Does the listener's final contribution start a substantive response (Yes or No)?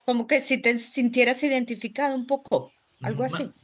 Yes